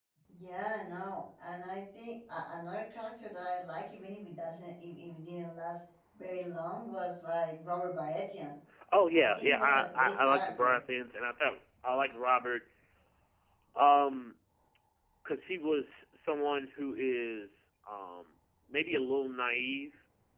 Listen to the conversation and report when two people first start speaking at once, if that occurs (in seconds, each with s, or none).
9.1 s